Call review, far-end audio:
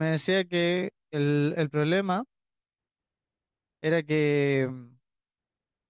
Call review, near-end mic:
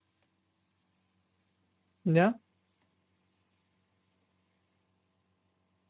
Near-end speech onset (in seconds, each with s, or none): 2.0 s